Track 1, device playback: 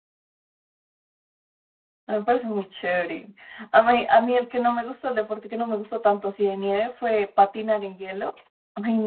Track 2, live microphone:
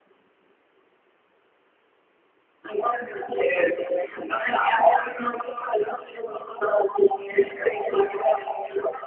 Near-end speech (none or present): none